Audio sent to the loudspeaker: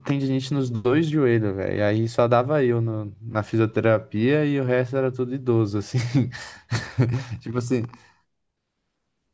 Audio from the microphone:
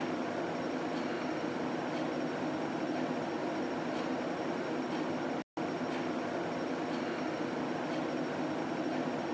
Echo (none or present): none